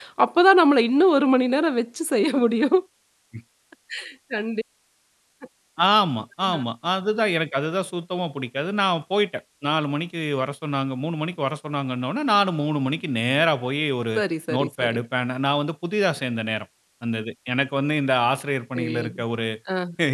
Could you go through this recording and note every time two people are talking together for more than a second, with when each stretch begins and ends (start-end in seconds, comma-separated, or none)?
none